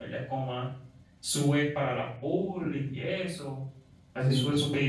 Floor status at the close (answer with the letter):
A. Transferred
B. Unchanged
B